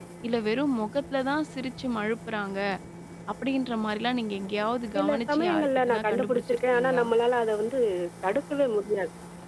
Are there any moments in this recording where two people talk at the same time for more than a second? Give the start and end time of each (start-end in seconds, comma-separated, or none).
5.0-7.0